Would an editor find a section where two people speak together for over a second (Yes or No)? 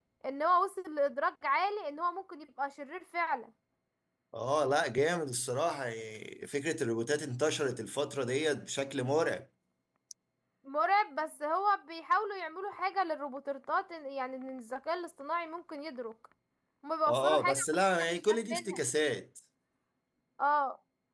Yes